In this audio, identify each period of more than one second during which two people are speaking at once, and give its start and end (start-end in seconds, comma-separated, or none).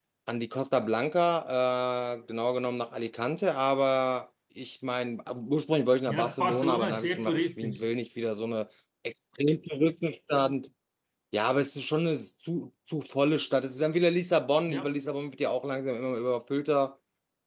6.1-7.9